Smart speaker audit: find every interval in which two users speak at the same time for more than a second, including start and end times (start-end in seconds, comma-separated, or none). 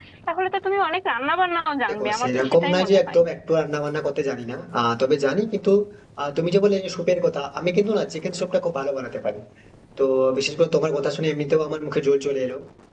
1.9-3.2